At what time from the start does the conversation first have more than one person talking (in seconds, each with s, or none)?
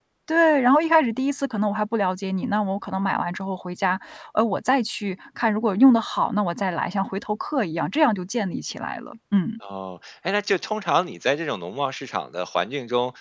none